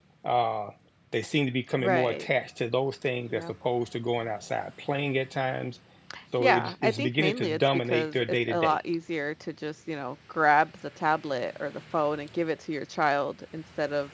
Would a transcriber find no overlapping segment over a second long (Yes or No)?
No